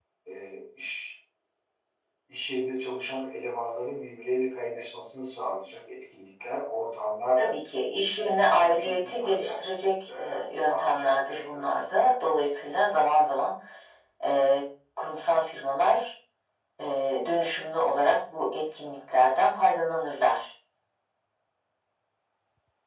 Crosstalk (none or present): present